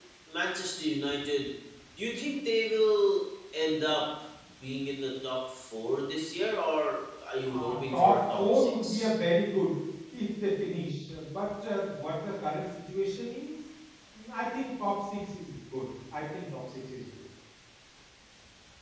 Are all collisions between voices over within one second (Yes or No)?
No